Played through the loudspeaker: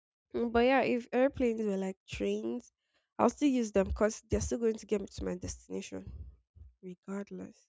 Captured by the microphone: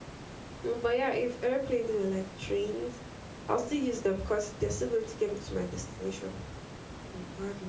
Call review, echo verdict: present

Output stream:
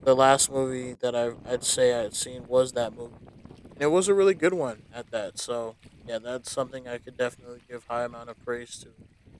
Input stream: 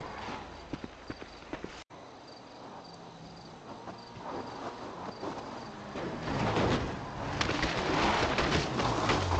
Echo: none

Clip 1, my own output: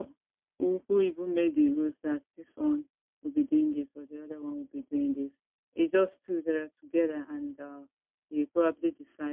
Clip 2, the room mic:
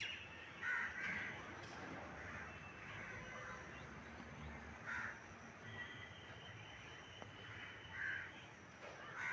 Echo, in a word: none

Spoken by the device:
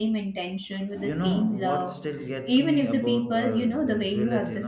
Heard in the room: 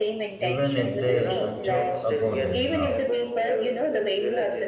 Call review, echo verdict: present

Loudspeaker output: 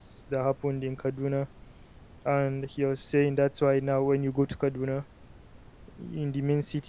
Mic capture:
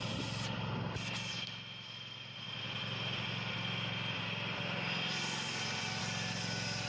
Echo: none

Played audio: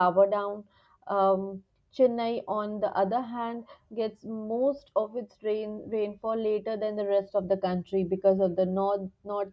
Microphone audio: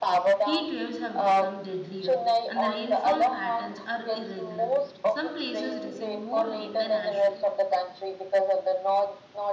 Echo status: present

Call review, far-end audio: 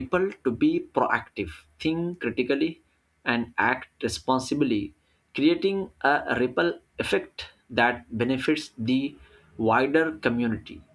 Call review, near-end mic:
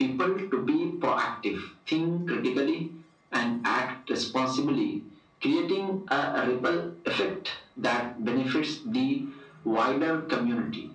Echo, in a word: present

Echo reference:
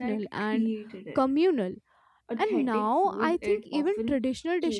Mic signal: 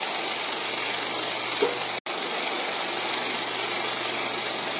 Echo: none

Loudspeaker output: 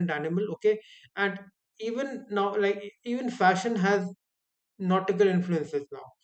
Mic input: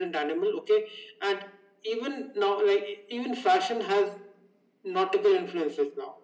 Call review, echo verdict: present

